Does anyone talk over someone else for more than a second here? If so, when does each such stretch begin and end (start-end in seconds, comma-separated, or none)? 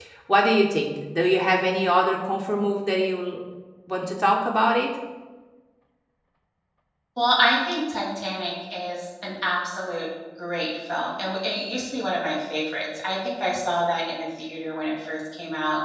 none